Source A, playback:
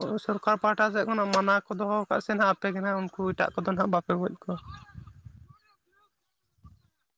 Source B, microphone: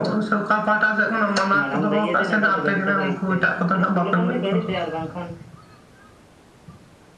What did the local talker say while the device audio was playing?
ᱢᱟᱲᱟᱝ ᱫᱚ ᱤᱭᱟᱹᱛᱮ ᱱᱮᱛᱟᱨ ᱫᱚ ᱜᱟᱹᱲᱤ ᱛᱮᱠᱚ ᱤᱨ ᱦᱚᱪᱚᱭᱮᱫᱟ ᱡᱟᱹᱯᱩᱫ ᱞᱮᱠᱷᱟᱱ ᱜᱮ ᱜᱟᱹᱲᱤ ᱛᱮ ᱟᱨ ᱵᱟᱝᱠᱷᱟᱱ

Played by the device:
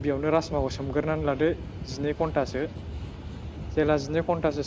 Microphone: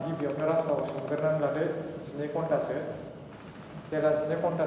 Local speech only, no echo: none

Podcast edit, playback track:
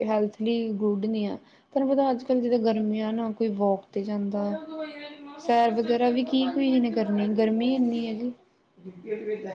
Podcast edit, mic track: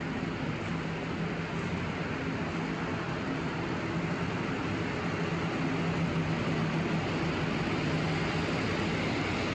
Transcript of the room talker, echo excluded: none

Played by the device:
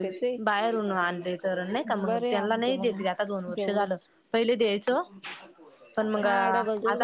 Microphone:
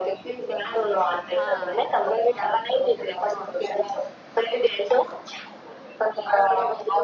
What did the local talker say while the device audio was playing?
हा

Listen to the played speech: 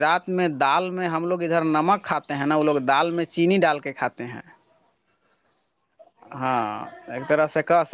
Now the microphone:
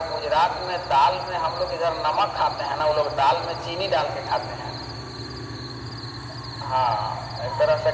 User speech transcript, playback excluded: none

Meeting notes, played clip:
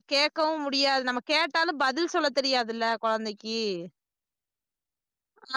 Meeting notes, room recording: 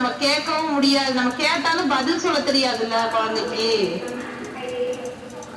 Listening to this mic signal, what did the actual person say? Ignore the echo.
வாழப்பழமா வேக வைக்காம கையிலயே மசிச்சு

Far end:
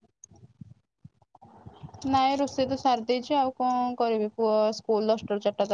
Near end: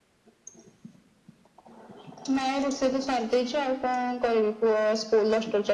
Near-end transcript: none

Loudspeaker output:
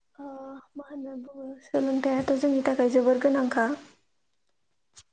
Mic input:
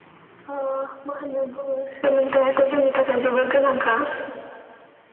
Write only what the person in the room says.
none

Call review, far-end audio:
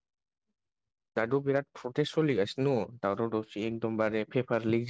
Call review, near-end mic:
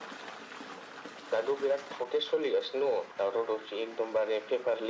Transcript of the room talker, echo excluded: none

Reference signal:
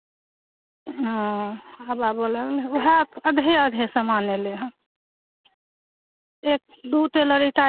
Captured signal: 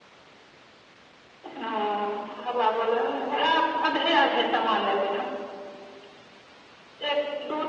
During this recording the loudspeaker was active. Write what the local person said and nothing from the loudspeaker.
none

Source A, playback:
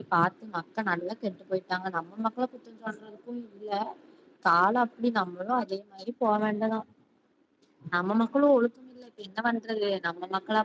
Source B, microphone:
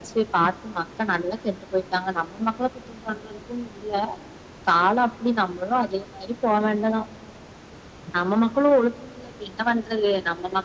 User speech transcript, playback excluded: none

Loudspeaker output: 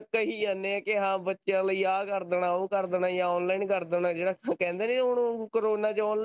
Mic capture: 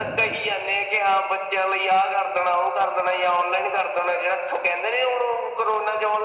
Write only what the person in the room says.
none

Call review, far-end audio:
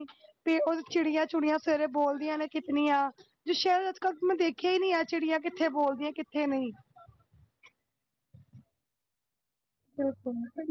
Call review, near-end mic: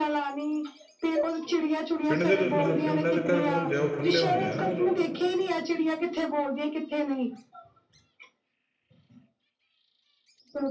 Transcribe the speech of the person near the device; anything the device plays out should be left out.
ਪਿੰਡ ਦੇ ਮਤਲਬ ਪਿੰਡਾ ਦੇ ਘਰ ਹੁੰਦੇ ਆ ਉਹ ਖੁੱਲ੍ਹੇ ਹੁੰਦੇ ਆ ਨਾ

